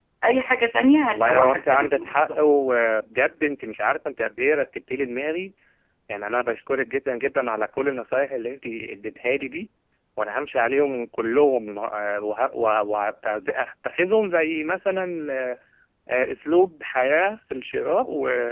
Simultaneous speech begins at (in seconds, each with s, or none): 1.1 s